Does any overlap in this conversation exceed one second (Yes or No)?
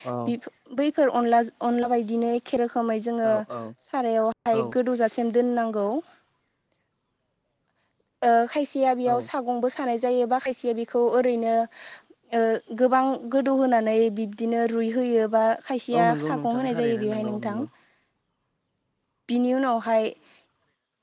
Yes